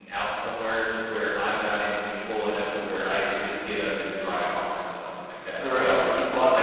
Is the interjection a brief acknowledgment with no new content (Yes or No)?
No